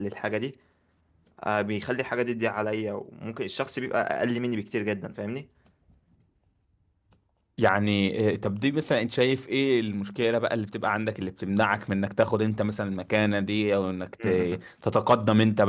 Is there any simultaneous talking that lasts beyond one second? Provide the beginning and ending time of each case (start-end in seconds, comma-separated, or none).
none